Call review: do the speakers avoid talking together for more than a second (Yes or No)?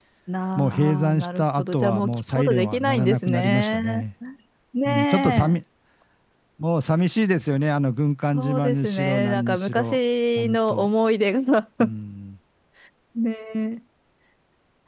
No